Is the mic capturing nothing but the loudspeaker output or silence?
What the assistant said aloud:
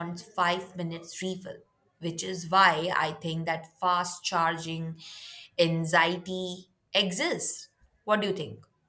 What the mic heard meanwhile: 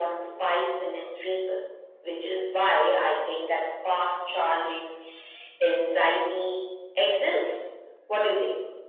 Yes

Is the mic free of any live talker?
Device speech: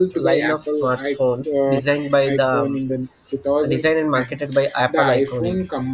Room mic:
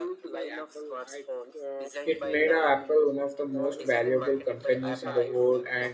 No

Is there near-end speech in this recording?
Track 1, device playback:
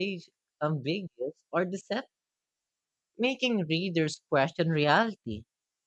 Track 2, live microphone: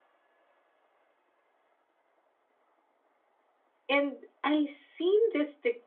Yes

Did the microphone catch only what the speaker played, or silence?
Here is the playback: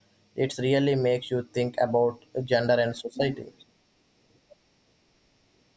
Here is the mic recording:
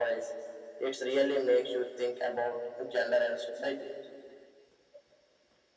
Yes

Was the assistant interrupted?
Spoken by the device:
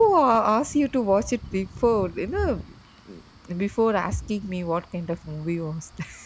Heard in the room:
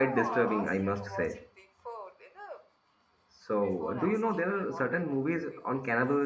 Yes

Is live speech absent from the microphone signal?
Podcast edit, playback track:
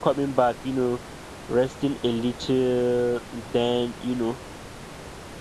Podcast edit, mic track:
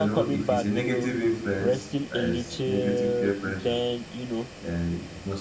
No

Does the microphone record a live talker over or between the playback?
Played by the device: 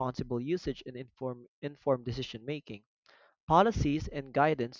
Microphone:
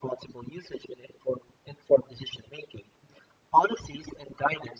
No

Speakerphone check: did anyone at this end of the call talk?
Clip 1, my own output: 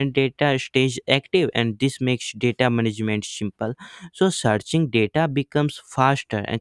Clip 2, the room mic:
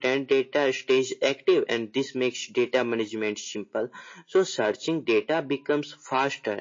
No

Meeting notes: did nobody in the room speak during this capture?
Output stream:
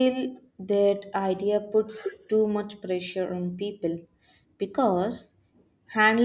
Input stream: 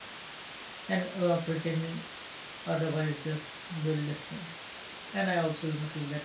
No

